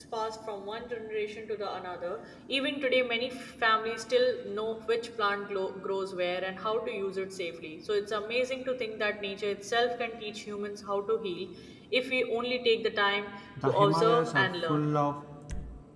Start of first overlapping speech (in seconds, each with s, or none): 13.6 s